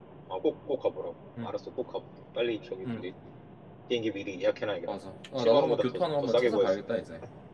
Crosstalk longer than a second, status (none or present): present